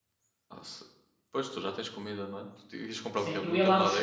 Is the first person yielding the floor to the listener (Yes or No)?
Yes